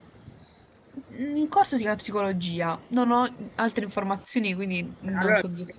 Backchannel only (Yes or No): No